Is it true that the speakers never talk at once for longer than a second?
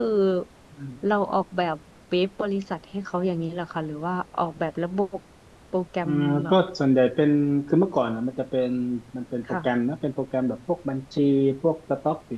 Yes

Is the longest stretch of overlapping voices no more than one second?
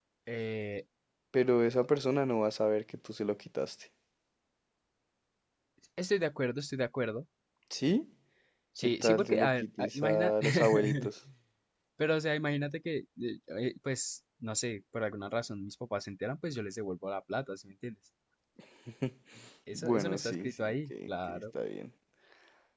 No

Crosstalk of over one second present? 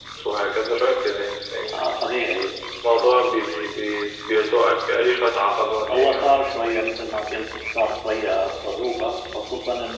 No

